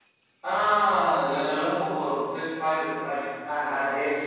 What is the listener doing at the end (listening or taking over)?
taking over